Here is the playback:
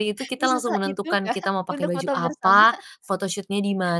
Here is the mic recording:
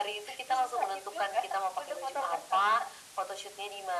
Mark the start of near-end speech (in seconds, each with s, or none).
none